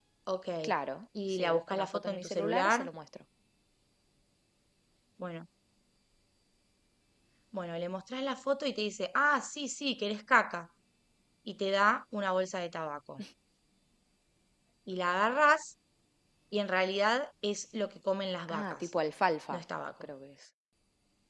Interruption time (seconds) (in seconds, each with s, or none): 1.3 s